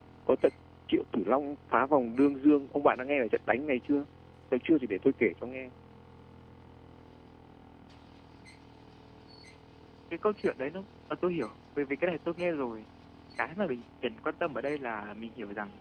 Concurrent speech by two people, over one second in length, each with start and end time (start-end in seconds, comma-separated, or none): none